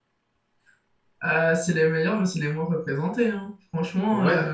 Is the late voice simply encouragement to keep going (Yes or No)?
No